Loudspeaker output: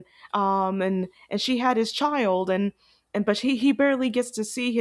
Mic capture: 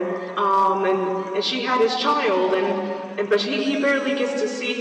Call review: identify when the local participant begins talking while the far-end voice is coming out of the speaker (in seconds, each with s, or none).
none